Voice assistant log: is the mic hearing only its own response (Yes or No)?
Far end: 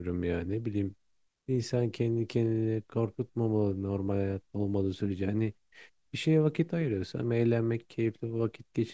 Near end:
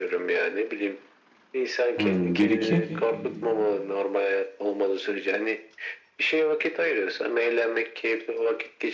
No